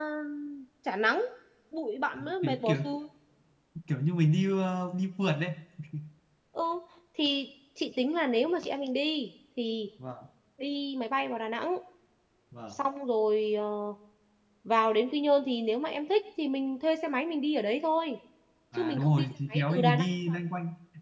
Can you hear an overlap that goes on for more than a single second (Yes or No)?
Yes